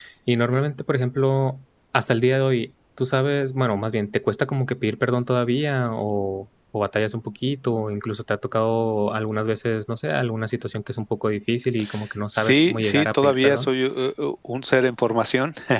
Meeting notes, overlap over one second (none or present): present